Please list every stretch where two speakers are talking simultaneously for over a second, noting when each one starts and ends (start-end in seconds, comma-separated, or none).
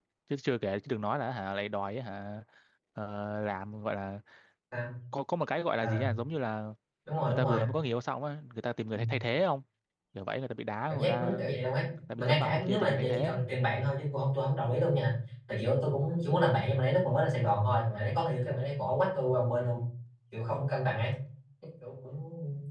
12.2-13.4